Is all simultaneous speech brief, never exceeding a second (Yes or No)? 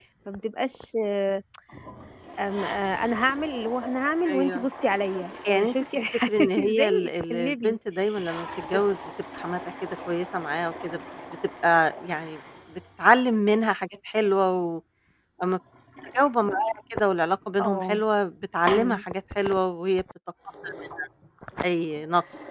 No